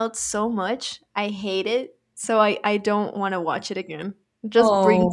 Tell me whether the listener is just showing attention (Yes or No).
Yes